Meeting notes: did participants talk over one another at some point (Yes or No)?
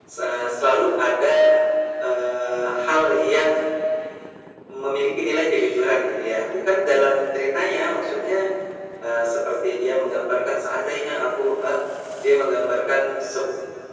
No